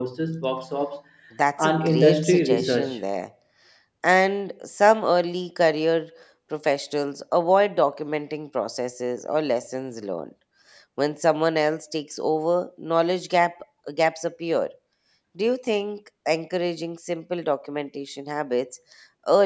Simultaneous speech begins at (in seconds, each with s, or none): 1.6 s